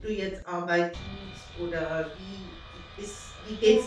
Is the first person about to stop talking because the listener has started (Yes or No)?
No